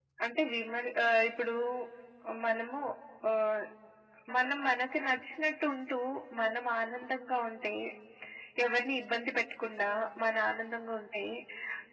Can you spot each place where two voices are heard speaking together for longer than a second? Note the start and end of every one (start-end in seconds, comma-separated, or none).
none